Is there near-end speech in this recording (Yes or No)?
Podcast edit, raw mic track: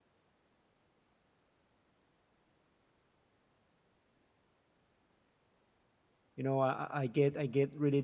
Yes